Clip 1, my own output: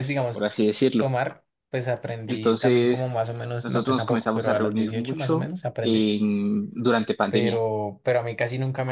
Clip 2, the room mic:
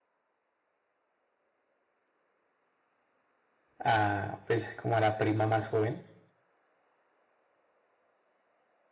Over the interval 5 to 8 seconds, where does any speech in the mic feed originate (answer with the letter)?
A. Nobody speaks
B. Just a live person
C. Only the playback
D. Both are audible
B